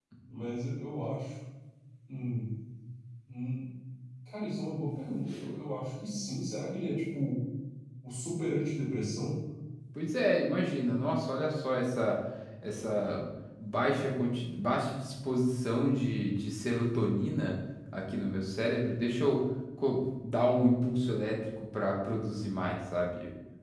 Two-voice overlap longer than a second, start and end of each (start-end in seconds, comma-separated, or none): none